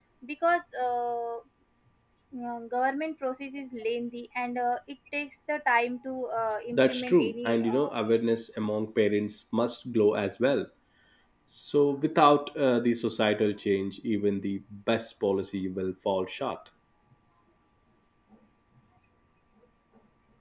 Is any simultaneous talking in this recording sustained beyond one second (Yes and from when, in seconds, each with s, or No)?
Yes, from 6.7 s